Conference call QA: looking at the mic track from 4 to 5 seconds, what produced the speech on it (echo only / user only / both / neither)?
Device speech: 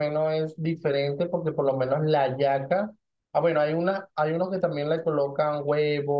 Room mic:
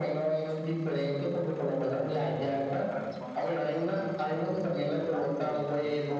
both